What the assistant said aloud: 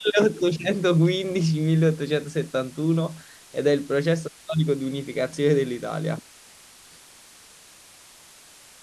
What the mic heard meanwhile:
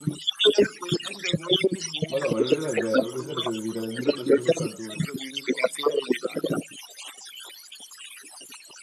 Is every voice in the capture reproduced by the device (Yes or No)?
No